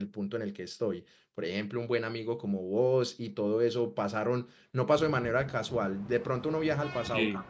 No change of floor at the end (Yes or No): Yes